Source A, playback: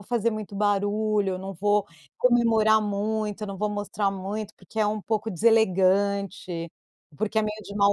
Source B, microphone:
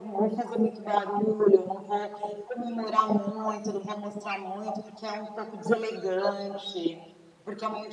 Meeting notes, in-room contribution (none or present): none